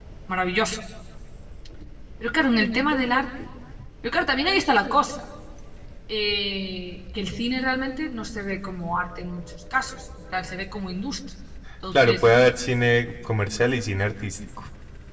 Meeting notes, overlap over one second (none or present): none